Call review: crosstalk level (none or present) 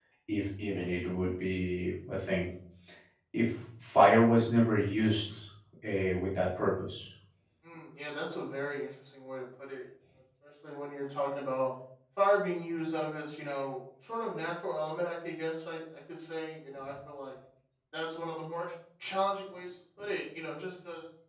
none